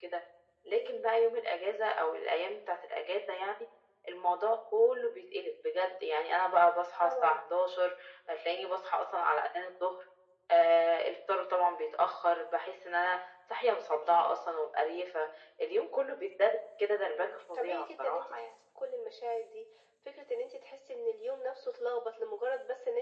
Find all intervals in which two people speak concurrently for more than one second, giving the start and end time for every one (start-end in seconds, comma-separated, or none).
17.1-18.5